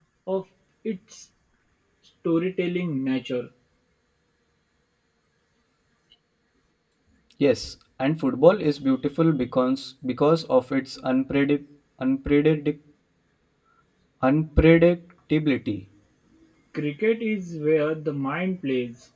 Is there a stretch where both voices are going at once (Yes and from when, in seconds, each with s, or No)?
No